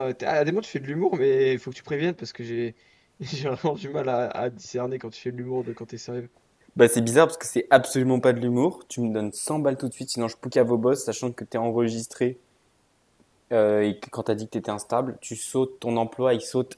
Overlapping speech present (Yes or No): No